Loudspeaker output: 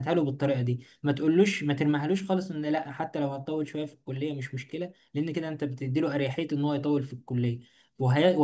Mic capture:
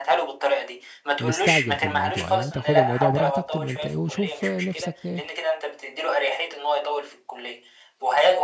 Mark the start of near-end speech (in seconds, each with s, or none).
1.2 s